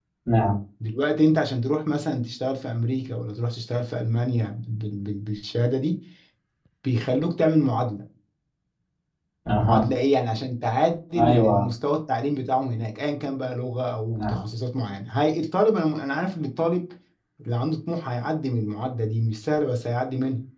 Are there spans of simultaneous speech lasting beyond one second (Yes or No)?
No